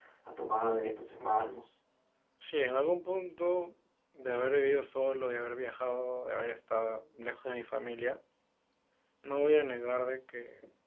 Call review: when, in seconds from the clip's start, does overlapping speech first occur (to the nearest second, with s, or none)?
none